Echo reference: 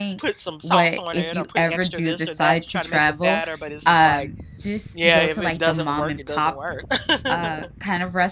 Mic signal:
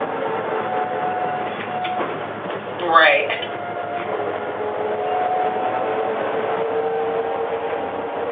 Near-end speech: present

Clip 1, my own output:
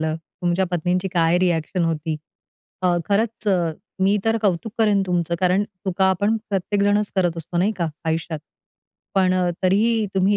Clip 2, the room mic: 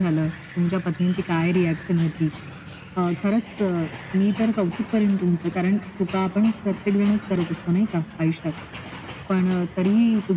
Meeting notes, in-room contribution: none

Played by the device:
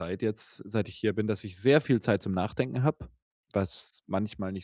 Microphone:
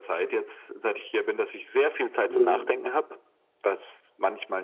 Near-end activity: present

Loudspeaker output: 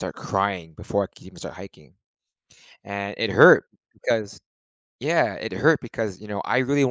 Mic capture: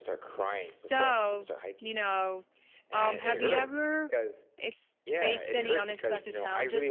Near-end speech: present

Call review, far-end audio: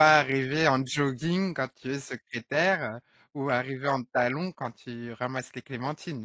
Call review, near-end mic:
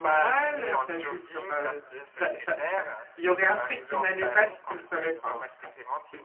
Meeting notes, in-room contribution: present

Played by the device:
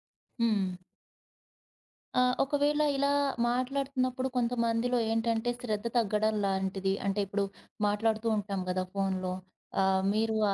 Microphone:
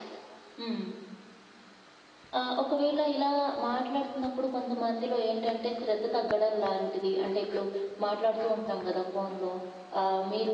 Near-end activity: none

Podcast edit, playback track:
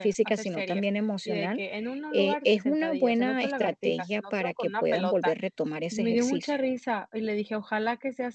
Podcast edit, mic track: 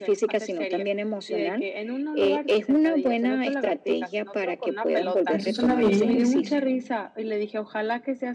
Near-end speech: present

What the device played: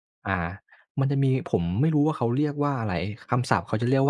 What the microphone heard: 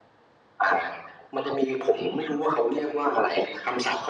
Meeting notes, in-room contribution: none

